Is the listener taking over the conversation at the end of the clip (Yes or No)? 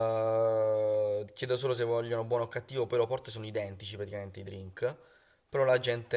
No